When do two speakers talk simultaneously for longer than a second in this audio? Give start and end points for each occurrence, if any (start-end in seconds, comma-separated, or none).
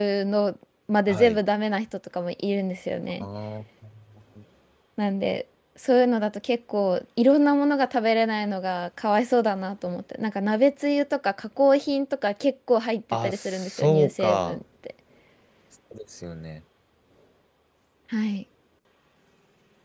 13.1-14.6